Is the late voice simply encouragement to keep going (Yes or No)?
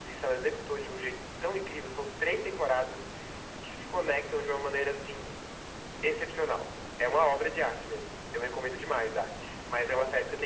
Yes